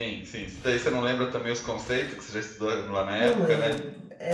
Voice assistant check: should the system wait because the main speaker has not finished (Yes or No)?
No